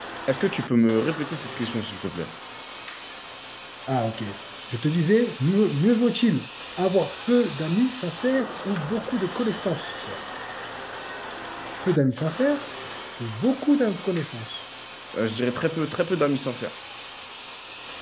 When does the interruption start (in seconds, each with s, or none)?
none